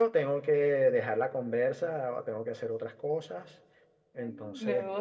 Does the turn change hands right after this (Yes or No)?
Yes